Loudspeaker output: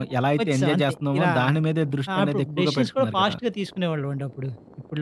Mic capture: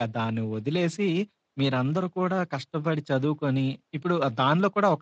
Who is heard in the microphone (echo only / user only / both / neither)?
user only